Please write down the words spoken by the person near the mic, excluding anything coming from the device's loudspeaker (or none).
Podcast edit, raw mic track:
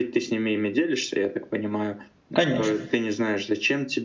Конечно.